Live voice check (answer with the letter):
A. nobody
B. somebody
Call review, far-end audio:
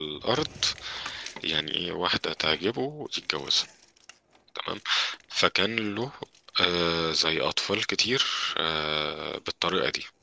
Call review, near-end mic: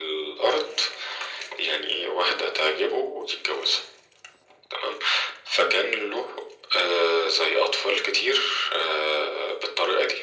A